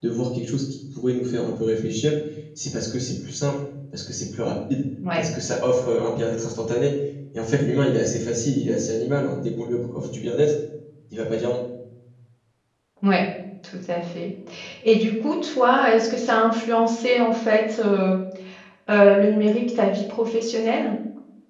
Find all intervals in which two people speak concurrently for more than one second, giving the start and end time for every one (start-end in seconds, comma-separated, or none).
none